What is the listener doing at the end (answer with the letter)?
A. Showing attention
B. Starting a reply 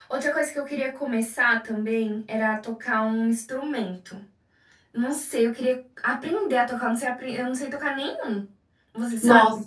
B